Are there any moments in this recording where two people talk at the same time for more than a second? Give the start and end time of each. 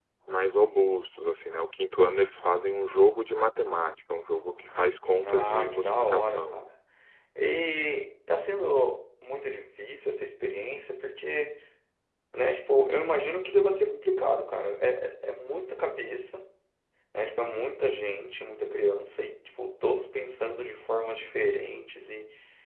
5.2-6.6

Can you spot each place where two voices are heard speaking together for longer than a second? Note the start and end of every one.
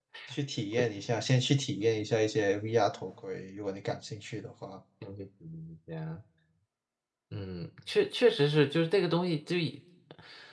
none

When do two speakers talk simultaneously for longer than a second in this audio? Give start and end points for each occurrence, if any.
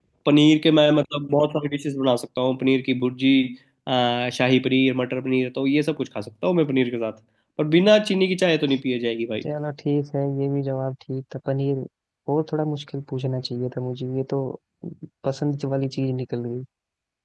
none

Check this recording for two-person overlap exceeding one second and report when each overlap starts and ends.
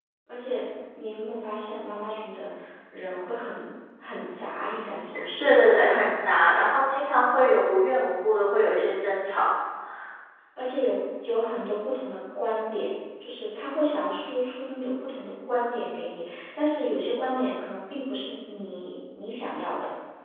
none

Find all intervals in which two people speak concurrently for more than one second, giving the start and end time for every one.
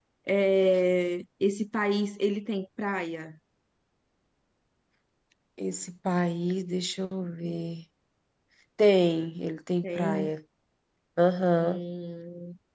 none

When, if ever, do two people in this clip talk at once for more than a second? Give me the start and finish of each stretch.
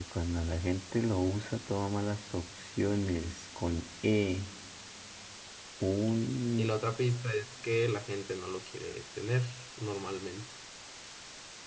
none

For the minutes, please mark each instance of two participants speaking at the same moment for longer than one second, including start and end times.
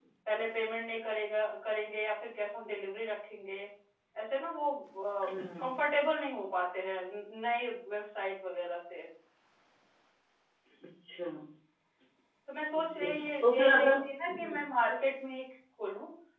12.8-14.6

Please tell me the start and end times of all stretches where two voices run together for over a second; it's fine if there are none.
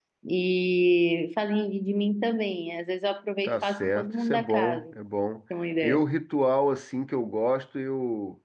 3.4-4.8

